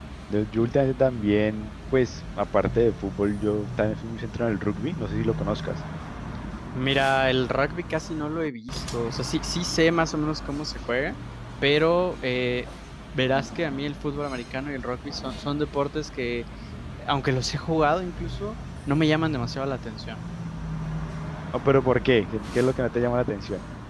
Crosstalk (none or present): none